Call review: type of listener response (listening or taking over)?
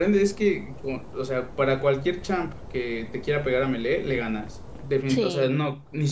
listening